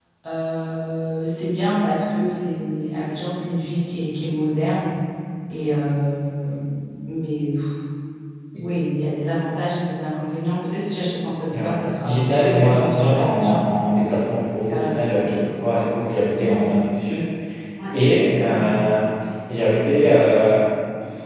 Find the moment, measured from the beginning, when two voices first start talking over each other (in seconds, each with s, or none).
11.5 s